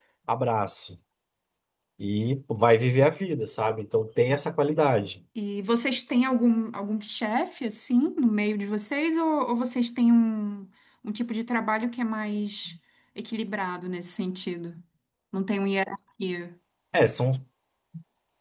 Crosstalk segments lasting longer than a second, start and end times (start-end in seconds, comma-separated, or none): none